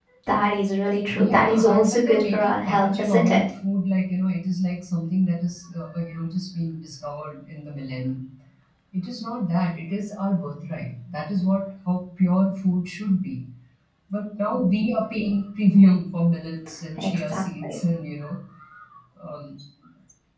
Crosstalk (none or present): present